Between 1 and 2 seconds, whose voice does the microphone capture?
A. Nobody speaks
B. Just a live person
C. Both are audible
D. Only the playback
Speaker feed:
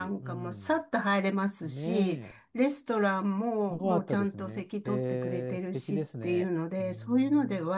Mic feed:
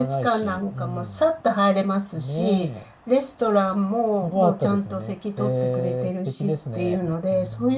D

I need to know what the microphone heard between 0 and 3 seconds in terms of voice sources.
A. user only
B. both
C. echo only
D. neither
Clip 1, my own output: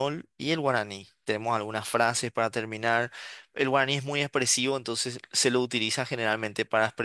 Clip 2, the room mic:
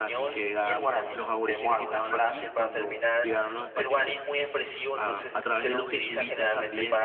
B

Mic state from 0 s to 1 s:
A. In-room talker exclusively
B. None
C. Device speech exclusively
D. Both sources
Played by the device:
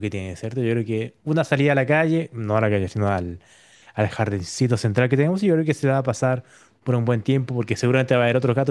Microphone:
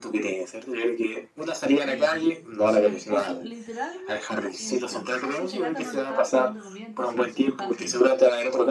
C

